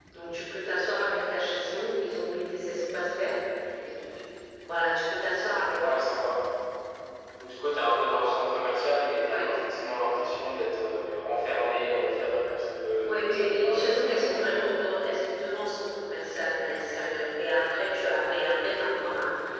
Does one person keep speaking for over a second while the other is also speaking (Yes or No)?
Yes